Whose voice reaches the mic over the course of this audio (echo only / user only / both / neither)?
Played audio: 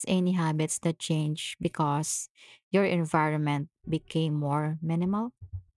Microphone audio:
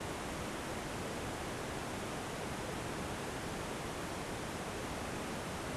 neither